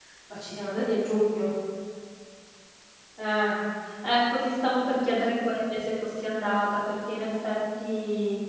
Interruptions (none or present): none